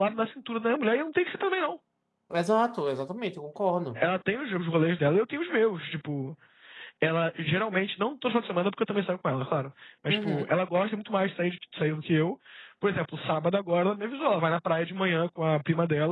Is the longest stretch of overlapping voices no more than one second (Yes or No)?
Yes